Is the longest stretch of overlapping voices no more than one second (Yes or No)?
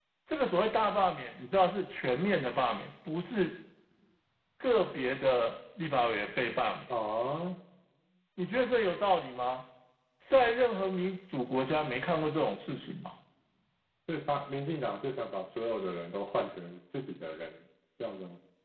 Yes